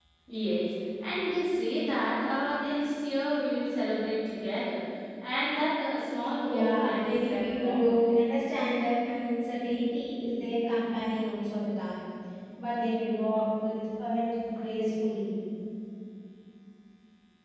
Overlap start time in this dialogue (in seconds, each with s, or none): 6.4 s